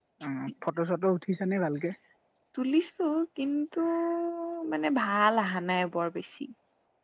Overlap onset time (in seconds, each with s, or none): none